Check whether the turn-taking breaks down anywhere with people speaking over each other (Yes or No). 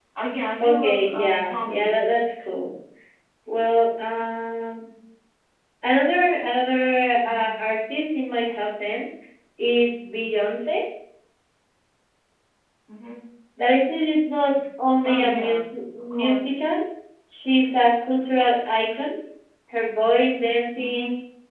Yes